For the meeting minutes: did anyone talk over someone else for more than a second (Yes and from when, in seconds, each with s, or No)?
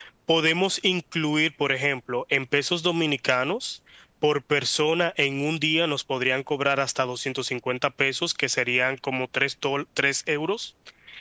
No